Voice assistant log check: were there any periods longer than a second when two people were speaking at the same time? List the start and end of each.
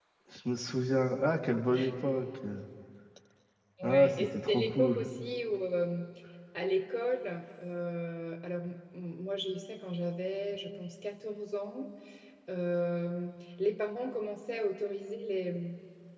3.8-5.1

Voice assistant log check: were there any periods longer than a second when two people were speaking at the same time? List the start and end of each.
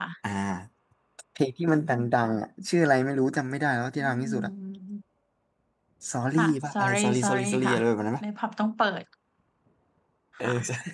6.3-7.8

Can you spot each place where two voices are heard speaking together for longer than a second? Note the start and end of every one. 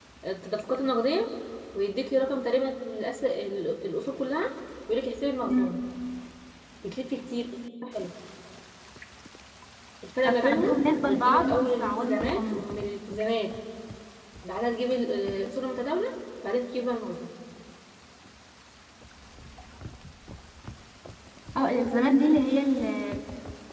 11.0-12.7

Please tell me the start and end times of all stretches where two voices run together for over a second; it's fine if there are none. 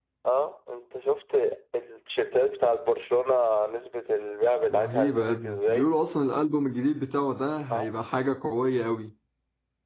4.7-5.9

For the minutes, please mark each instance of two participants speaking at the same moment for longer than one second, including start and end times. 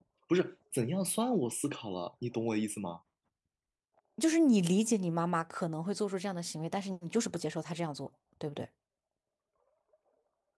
none

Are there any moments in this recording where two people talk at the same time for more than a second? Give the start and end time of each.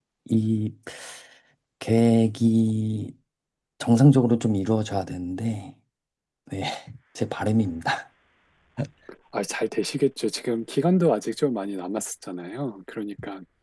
none

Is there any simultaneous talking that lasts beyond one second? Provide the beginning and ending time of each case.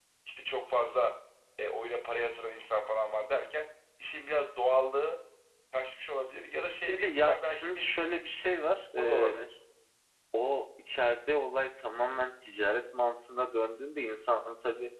6.9-8.2

